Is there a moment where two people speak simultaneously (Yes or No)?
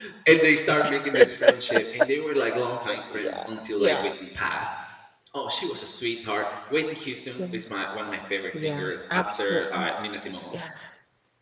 Yes